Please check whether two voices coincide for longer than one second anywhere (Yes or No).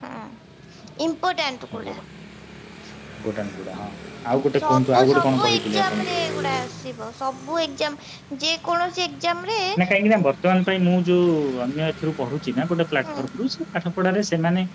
Yes